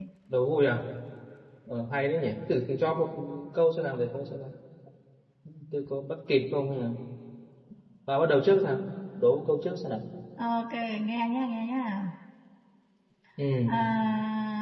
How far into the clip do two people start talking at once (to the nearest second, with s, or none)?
none